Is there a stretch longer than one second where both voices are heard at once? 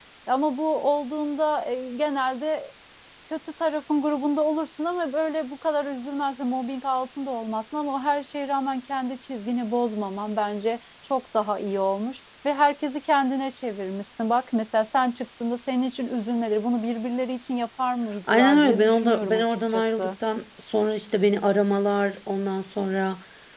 Yes, from 18.3 s

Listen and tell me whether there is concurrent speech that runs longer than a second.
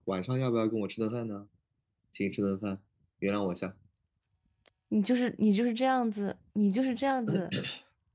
No

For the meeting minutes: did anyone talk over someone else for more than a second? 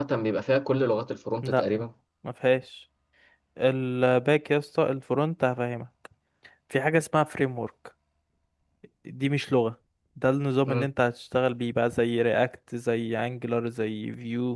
No

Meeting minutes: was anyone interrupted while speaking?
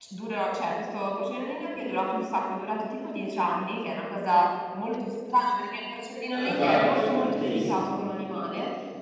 Yes, from 6.3 s

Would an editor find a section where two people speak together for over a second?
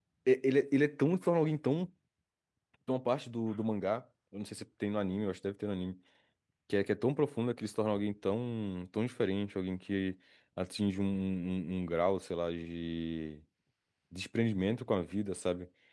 No

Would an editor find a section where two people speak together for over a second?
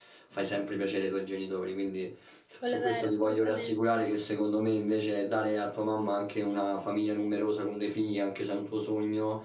Yes, from 2.6 s

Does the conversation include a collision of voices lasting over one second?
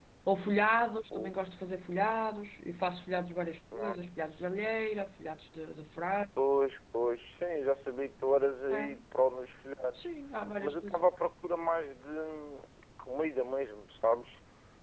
No

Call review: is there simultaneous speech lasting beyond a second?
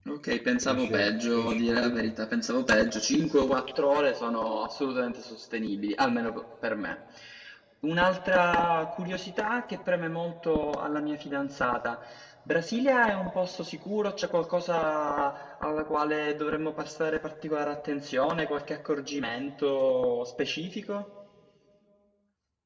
Yes, from 0.6 s

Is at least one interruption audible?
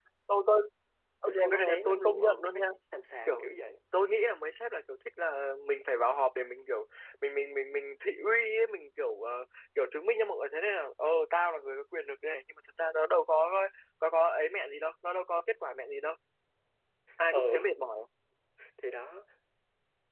Yes, from 1.3 s

